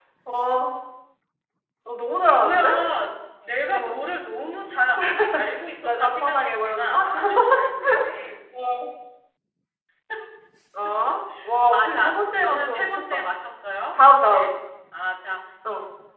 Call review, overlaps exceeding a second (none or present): present